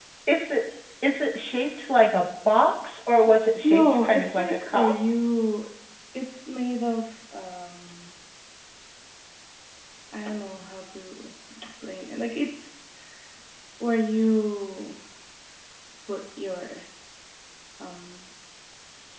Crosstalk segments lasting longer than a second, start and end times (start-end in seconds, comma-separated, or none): 3.6-4.9